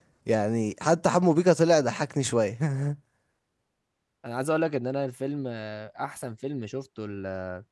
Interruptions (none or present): none